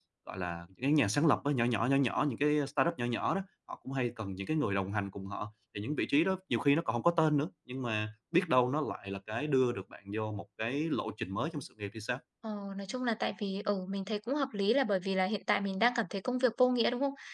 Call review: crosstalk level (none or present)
none